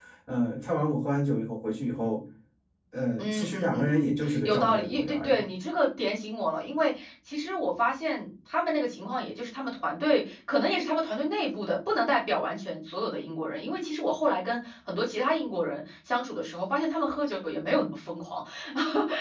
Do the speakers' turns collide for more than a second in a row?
Yes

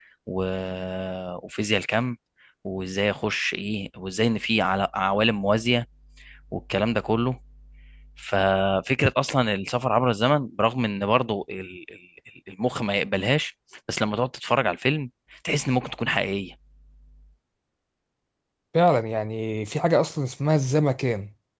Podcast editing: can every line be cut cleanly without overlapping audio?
Yes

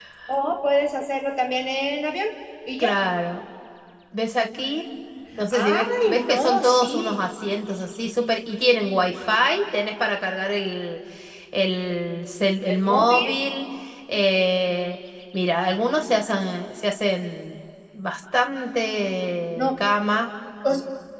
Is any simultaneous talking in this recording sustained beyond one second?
Yes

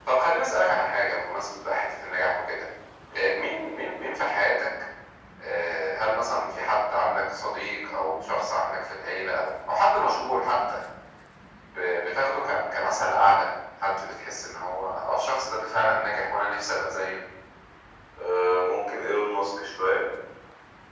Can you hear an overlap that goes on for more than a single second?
No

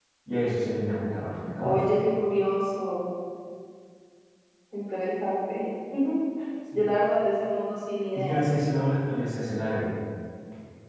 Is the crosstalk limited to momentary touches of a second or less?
Yes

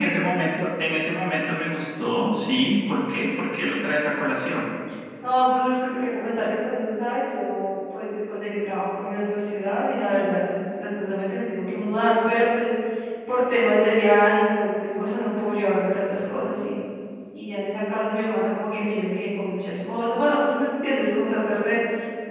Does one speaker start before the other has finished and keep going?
No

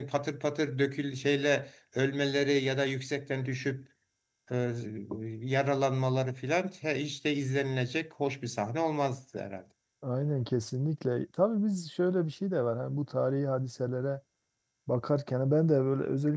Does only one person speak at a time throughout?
Yes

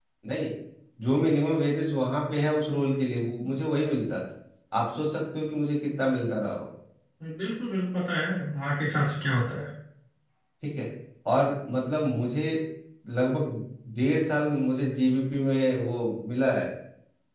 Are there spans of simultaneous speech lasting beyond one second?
No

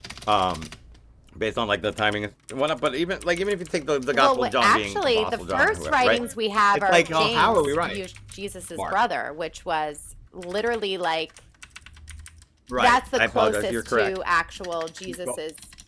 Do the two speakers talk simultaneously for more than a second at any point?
Yes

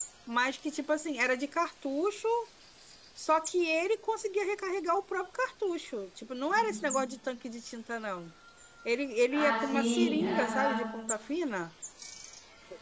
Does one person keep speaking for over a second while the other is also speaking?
Yes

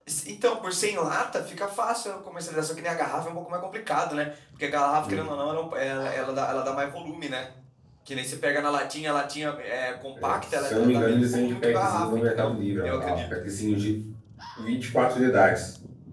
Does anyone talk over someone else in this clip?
Yes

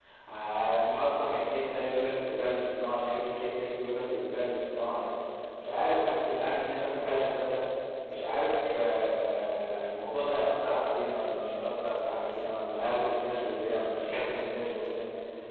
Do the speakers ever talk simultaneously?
No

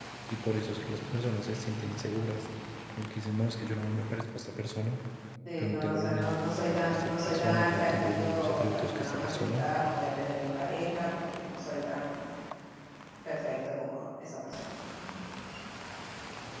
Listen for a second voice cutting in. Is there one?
Yes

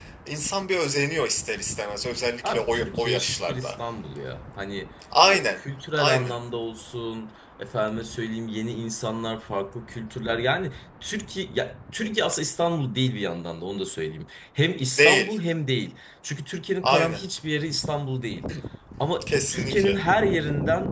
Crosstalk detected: Yes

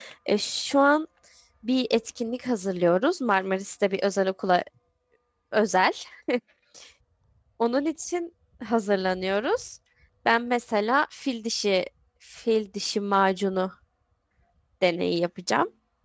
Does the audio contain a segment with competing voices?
No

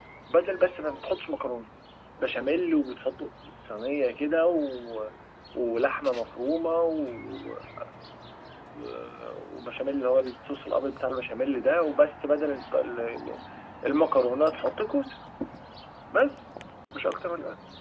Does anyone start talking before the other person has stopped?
No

